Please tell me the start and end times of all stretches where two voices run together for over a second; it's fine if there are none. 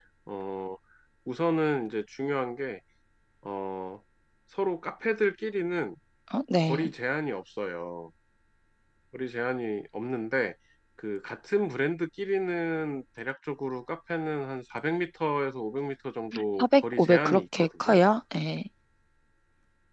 16.6-18.0

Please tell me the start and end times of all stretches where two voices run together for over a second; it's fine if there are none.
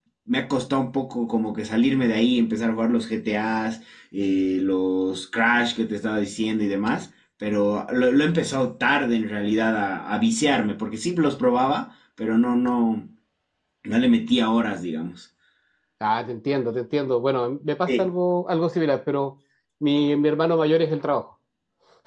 none

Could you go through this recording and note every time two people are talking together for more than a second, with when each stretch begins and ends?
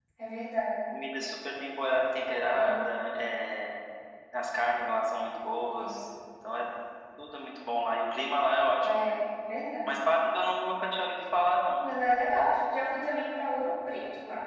none

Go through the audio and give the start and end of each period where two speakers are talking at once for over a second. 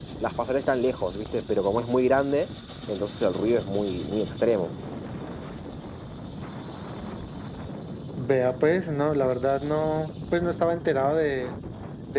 none

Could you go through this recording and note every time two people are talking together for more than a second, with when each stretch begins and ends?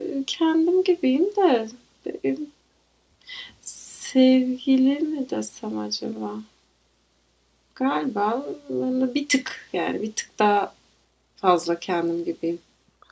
none

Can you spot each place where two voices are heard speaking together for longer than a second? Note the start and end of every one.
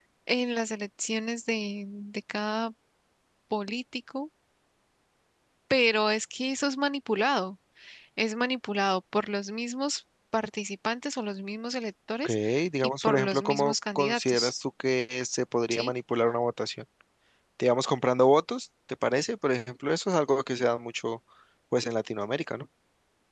13.0-14.5

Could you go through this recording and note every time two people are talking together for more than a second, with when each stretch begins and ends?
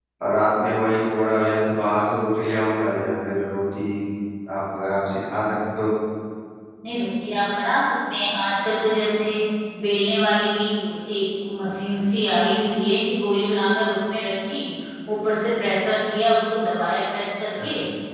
none

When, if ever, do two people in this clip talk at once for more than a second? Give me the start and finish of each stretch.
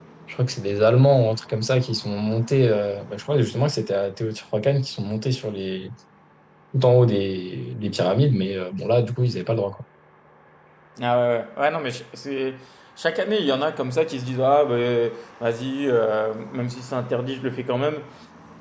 none

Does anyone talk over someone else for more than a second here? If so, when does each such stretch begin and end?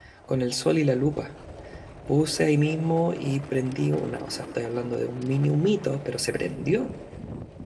none

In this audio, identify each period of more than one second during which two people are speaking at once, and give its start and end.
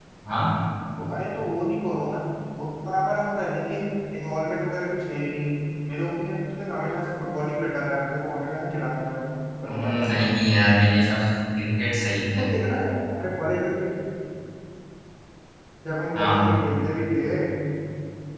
none

